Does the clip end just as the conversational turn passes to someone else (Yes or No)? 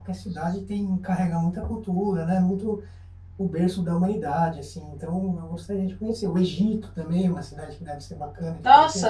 Yes